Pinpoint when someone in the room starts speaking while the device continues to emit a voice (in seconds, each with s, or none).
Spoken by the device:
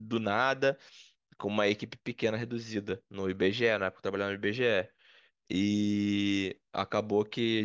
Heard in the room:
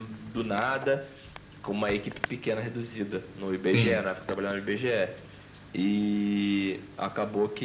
3.6 s